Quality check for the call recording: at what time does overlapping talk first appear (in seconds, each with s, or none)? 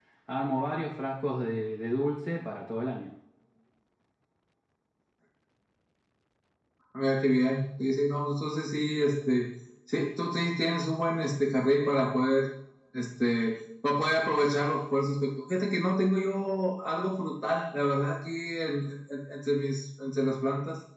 none